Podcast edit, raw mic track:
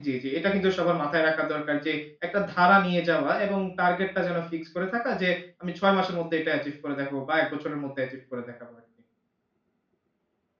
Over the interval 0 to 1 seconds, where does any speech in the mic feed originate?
user only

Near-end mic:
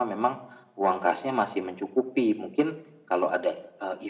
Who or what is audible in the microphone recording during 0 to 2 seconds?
echo only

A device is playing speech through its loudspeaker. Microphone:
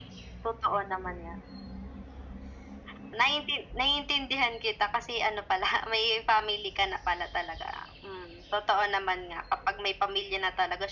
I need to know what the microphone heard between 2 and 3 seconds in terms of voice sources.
neither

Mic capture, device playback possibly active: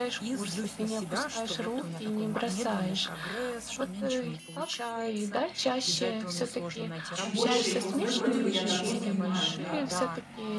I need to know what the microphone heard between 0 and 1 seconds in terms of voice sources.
echo only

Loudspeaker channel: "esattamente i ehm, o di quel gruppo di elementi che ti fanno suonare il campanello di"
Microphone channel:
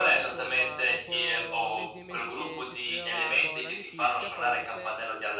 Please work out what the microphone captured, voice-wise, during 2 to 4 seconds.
both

